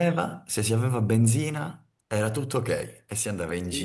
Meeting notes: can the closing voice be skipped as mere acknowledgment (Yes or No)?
No